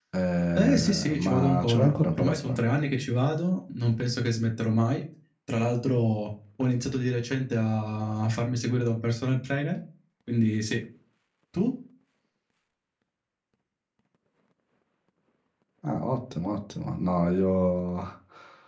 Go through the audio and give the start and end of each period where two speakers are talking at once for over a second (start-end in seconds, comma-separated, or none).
0.6-2.6